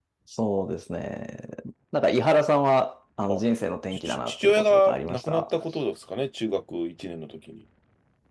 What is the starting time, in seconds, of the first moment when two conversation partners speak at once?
3.9 s

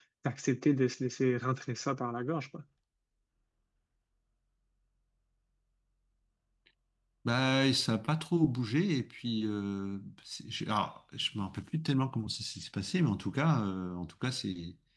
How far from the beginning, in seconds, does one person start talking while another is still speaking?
none

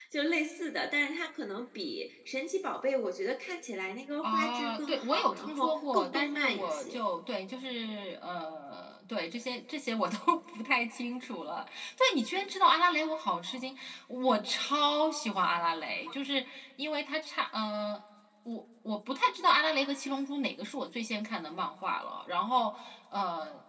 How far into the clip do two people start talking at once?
4.2 s

